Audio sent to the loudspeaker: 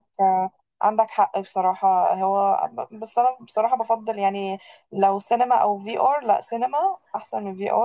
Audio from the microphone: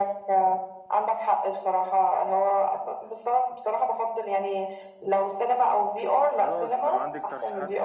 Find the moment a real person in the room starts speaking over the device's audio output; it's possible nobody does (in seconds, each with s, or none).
6.2 s